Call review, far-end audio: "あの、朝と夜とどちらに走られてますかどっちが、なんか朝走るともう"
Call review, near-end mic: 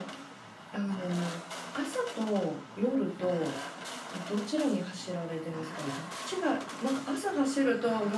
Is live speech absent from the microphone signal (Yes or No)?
Yes